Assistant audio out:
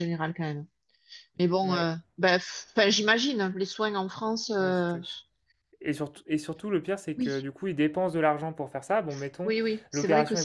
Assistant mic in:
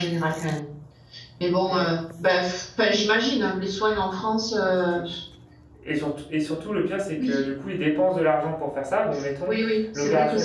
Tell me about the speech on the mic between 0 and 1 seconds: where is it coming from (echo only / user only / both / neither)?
echo only